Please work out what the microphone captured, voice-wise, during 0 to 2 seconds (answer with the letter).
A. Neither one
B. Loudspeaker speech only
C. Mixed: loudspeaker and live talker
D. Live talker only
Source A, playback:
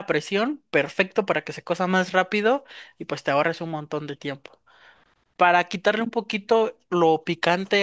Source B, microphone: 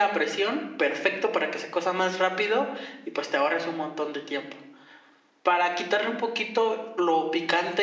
B